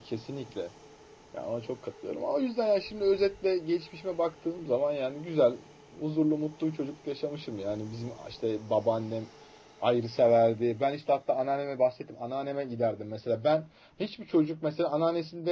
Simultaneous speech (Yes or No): No